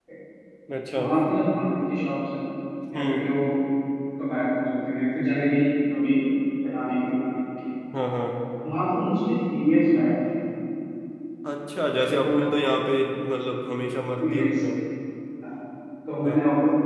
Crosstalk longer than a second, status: none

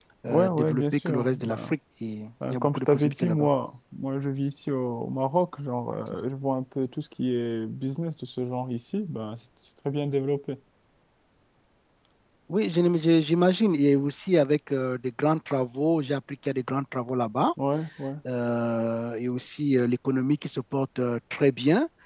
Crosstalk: present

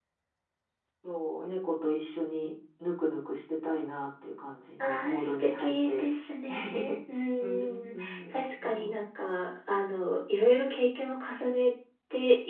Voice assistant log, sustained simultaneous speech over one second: present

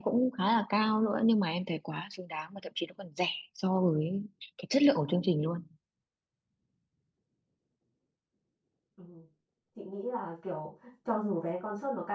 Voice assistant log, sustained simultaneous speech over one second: none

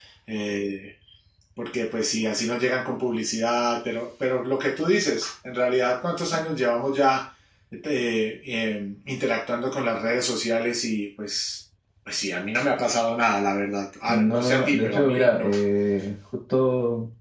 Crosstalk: present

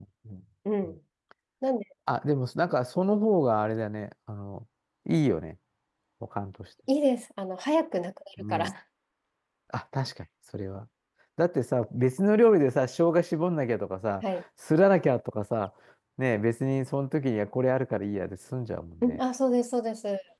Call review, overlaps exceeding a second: none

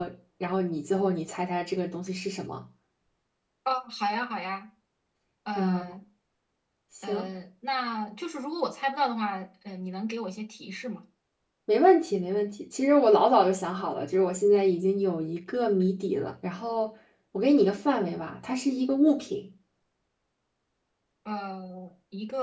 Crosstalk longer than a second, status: none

